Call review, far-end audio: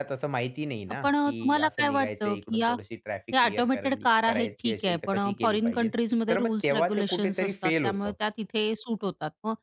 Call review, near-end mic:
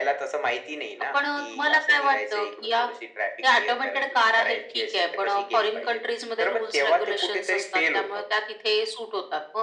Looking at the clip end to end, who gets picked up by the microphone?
echo only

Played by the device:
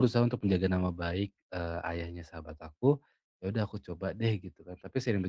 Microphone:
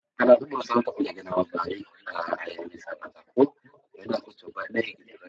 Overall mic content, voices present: echo only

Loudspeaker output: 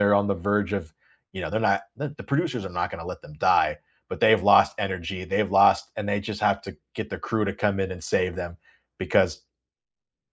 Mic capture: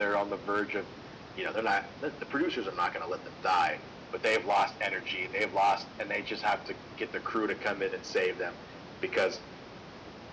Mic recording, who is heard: echo only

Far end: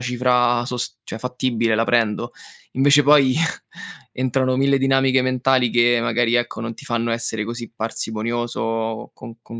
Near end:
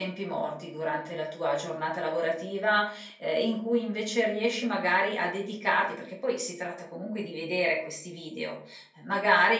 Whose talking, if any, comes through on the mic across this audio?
user only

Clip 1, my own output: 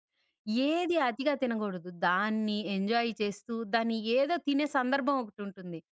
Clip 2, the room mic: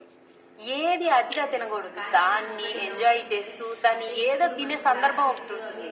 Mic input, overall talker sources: both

